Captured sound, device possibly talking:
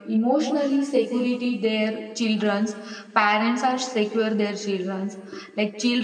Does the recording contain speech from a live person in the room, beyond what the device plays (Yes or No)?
No